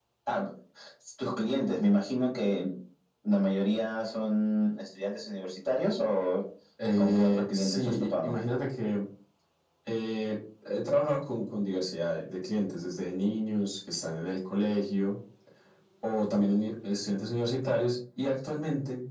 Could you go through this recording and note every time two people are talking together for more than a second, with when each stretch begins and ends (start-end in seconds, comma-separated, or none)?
7.0-8.3